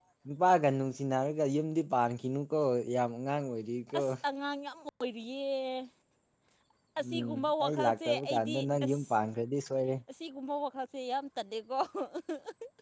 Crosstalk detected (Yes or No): Yes